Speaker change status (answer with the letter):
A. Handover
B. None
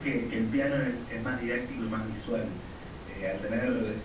B